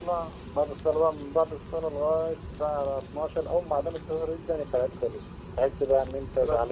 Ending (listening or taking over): listening